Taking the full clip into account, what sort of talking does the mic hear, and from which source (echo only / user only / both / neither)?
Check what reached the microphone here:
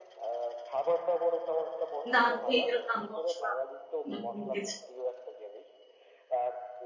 both